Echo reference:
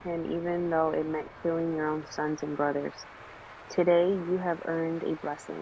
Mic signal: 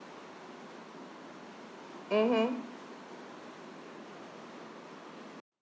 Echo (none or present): none